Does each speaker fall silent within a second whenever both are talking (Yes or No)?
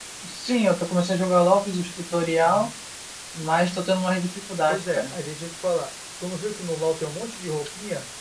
Yes